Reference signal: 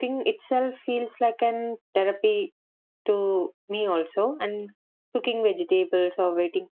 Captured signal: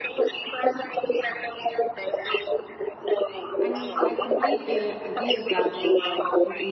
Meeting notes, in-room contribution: present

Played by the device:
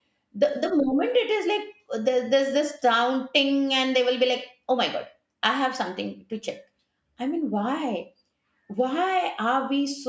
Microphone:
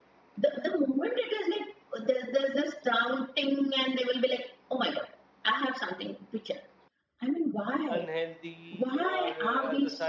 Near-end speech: present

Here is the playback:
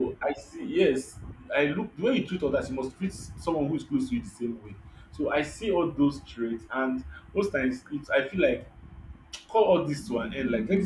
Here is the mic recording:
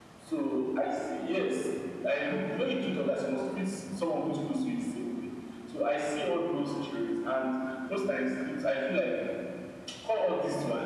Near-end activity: none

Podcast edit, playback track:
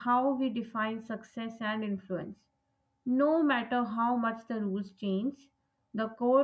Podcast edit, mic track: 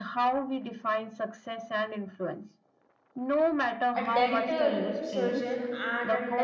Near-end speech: present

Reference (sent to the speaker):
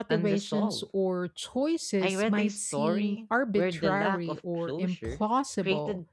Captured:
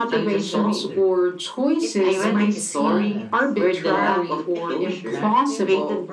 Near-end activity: present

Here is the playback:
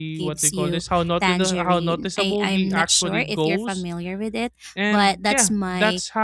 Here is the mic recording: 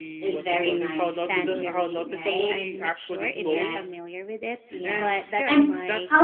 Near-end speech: present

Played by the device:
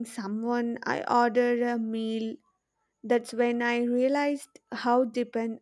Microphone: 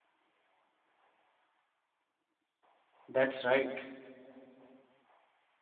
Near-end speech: present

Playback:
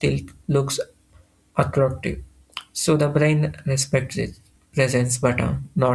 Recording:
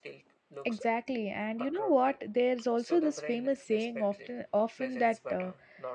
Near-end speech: present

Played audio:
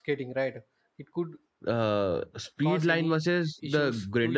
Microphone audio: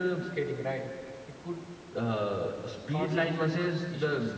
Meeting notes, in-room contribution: none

